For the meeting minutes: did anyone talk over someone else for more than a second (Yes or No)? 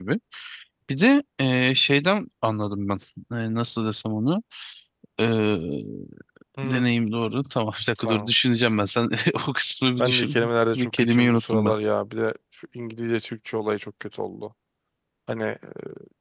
Yes